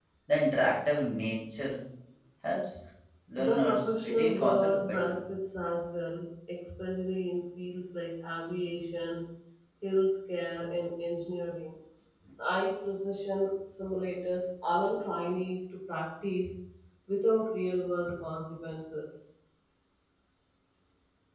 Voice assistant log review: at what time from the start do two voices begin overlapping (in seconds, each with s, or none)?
3.4 s